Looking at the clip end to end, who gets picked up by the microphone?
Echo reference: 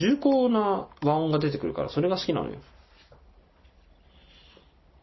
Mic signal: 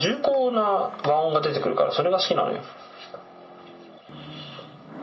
echo only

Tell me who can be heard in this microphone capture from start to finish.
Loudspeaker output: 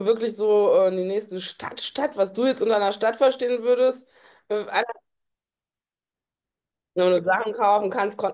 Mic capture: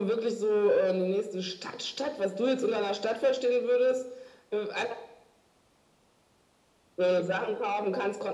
echo only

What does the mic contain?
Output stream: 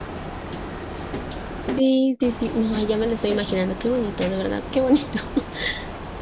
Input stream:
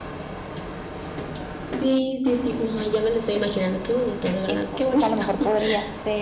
both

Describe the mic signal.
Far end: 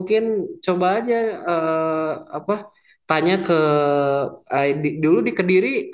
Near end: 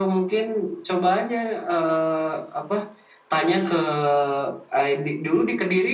echo only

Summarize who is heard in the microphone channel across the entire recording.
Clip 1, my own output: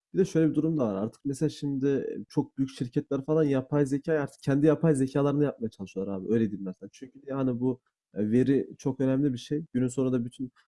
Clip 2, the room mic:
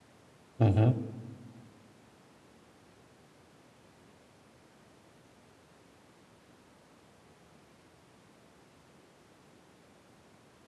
user only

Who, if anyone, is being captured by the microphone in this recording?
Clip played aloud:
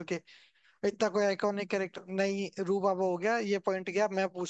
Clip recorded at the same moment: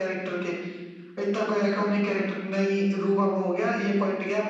echo only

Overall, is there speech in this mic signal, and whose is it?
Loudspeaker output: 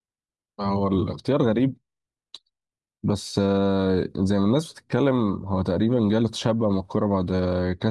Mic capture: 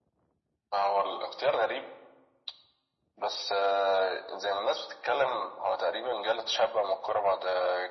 echo only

